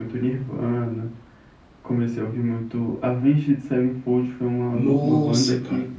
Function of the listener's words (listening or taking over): taking over